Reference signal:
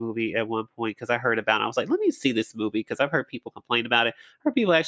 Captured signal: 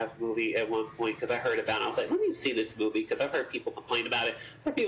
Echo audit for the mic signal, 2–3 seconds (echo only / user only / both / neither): echo only